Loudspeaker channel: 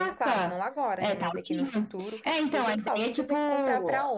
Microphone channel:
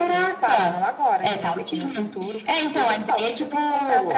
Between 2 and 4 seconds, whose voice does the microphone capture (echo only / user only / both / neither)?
echo only